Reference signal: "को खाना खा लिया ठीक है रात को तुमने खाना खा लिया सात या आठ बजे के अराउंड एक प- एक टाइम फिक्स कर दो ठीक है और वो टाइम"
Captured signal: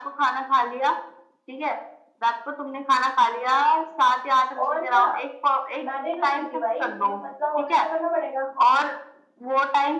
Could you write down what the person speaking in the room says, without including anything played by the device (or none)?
और क्या मैं भी करती थी भाई तुम्हें पतला होना है तो करना पड़ेगा